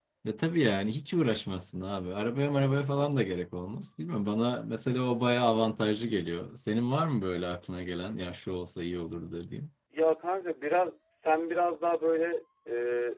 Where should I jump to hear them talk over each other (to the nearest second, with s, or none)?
none